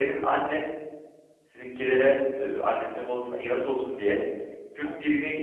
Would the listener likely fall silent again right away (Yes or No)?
Yes